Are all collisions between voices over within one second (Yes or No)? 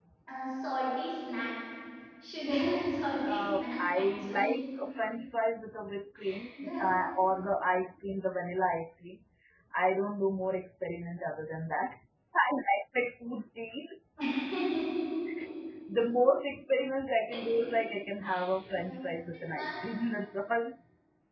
No